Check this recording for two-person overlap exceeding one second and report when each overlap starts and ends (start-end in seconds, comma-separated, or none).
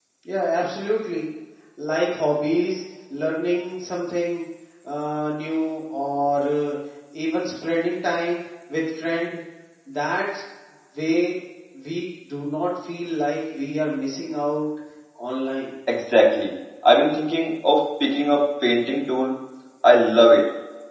none